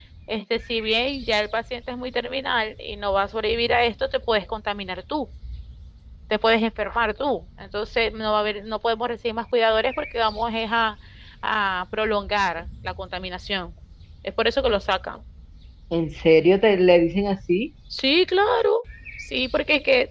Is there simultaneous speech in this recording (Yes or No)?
No